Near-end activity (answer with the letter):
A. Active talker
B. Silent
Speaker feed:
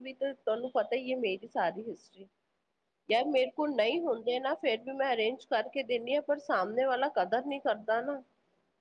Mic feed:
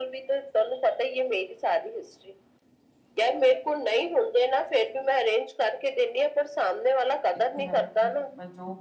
A